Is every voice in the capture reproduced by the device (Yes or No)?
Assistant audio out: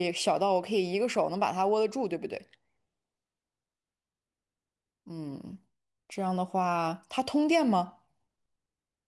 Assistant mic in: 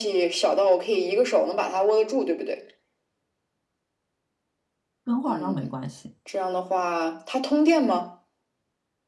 No